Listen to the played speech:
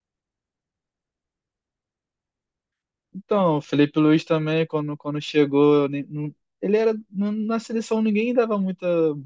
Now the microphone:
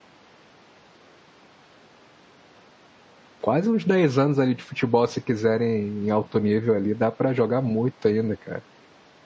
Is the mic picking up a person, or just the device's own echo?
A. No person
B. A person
B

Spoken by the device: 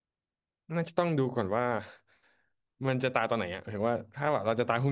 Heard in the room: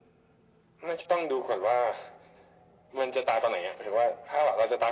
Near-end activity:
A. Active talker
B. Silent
B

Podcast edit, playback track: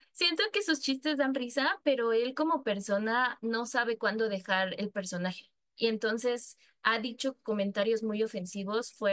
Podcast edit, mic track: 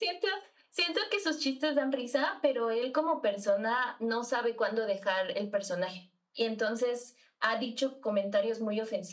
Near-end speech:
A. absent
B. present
A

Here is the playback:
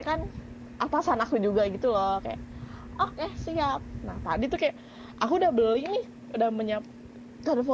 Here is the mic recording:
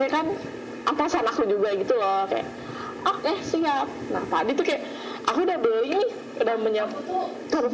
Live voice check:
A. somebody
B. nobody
A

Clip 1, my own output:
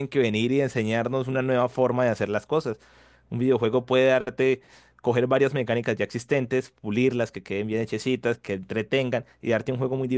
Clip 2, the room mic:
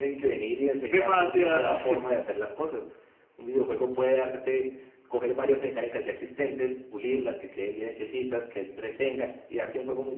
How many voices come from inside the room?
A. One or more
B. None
A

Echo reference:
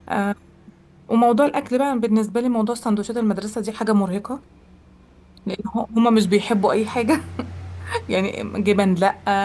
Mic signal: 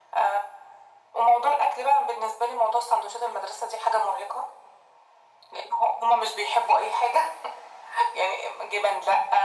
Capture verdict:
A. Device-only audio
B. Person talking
A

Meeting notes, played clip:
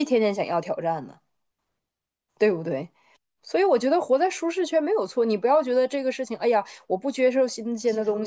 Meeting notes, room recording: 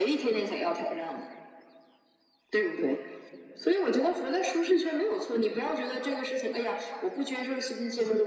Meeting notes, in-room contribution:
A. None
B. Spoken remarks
A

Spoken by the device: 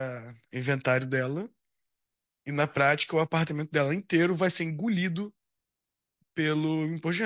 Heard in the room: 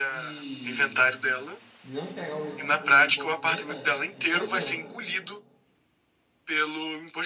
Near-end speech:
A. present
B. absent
A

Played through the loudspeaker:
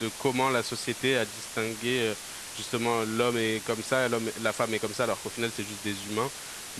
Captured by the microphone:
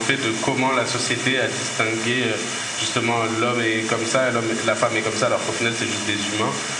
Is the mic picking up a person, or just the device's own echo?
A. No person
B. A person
A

